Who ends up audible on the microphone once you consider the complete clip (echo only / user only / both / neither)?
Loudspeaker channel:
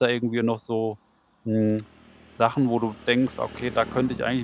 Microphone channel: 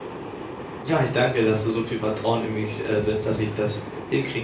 user only